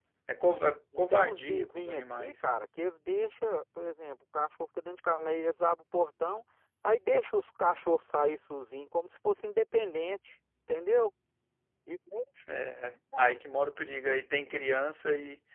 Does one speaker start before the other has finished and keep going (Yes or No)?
Yes